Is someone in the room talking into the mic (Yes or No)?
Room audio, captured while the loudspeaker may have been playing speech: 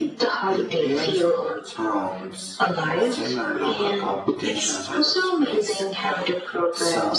No